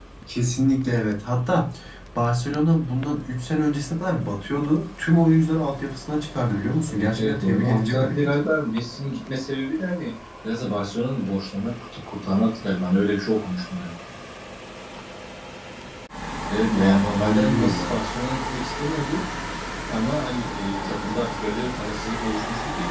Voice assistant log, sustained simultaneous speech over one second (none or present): present